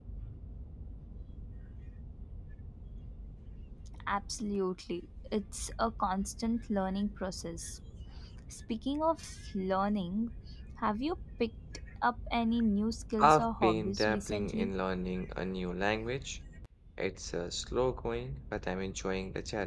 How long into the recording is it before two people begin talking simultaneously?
13 s

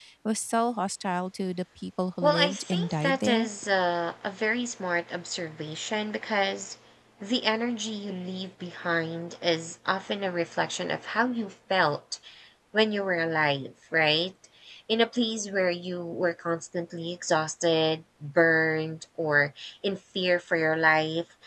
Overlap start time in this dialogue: 2 s

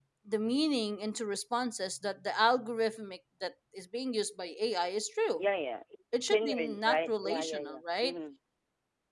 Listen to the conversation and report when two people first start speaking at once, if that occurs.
6 s

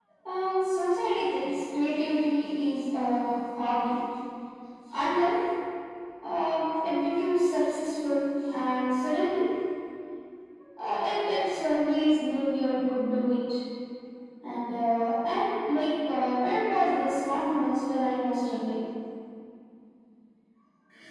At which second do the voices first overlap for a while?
none

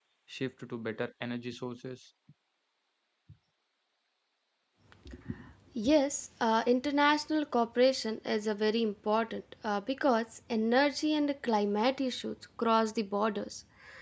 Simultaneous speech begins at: none

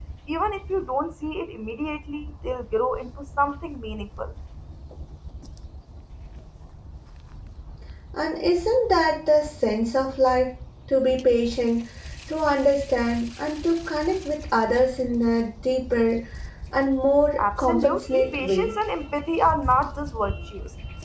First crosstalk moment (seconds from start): 17 s

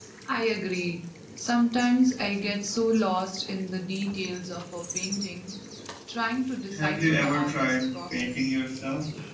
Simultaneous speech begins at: 7 s

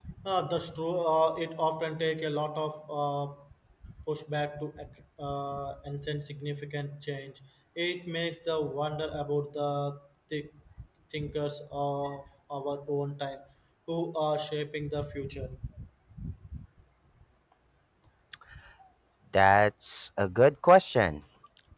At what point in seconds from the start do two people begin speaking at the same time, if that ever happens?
none

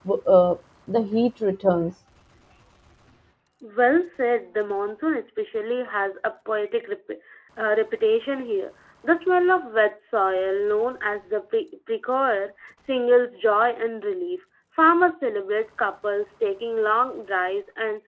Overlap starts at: none

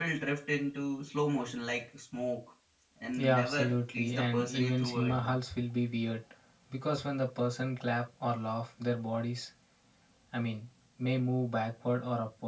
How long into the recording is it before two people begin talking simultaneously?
3 s

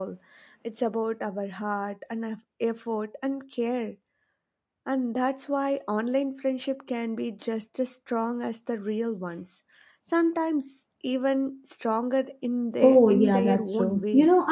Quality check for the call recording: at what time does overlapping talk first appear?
13 s

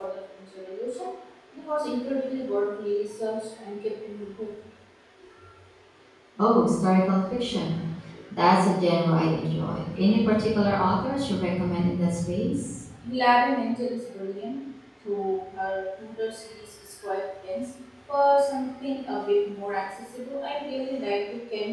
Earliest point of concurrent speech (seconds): none

